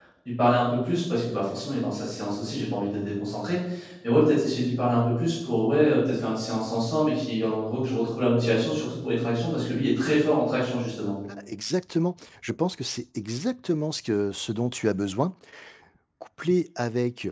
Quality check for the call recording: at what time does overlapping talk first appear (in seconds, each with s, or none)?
none